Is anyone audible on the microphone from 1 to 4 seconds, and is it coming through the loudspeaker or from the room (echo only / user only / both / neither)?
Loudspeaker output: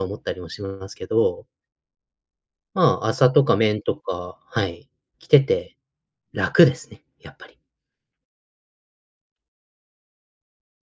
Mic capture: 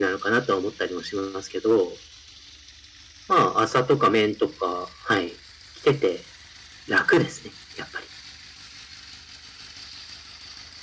echo only